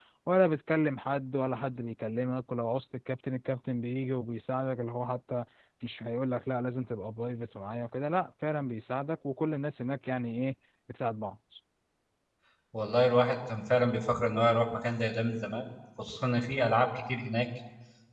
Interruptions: none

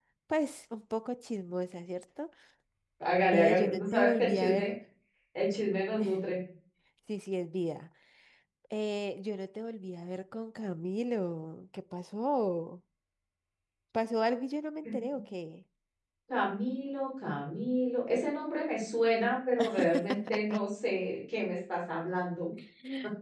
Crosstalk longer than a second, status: present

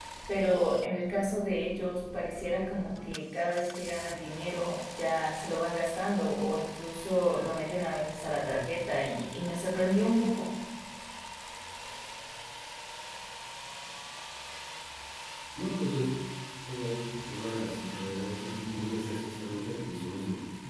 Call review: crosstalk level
none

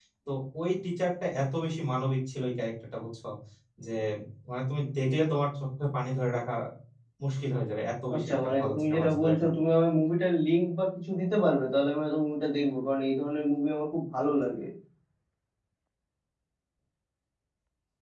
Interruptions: present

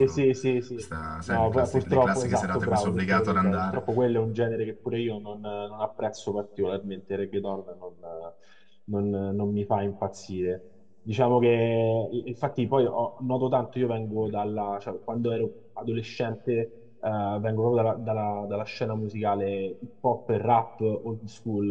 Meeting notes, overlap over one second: present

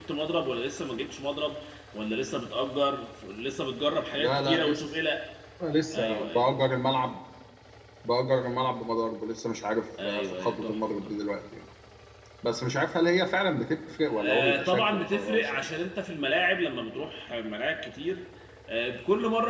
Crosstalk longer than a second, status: present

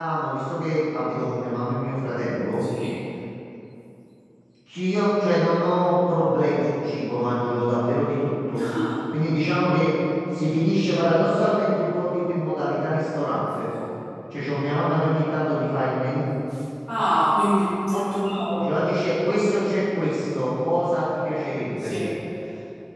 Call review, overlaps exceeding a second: none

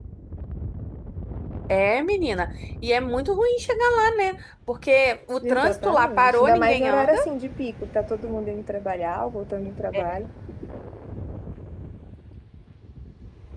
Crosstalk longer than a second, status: present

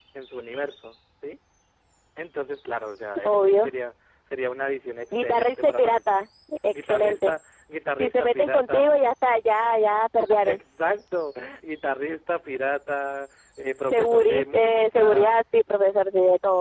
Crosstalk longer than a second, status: present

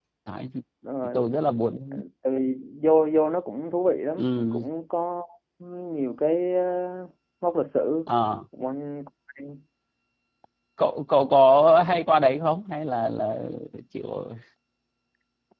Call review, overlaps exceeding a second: none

